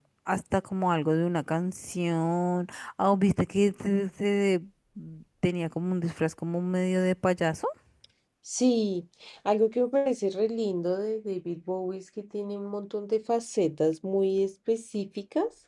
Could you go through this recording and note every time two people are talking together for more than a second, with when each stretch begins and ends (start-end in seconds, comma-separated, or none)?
none